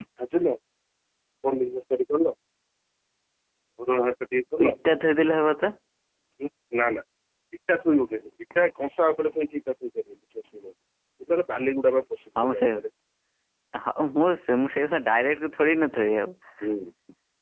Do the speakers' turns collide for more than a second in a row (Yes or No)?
No